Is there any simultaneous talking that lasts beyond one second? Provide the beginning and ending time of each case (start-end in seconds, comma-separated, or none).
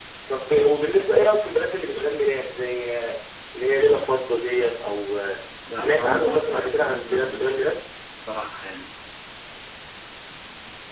5.7-7.6